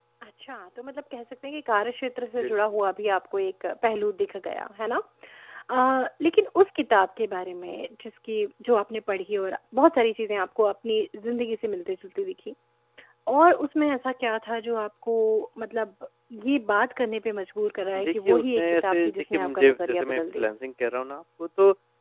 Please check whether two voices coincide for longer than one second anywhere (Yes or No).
Yes